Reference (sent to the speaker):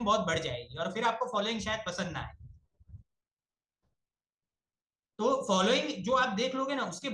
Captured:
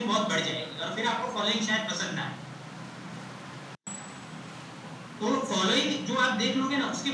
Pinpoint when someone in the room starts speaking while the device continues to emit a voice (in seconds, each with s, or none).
none